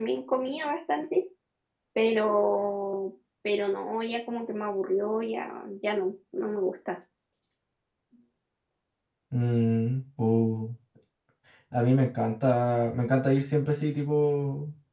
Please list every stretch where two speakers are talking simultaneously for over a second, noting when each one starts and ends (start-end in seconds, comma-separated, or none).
none